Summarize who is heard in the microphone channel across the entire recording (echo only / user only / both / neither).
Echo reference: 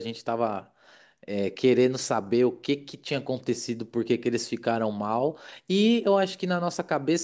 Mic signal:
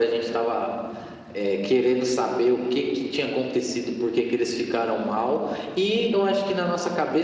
echo only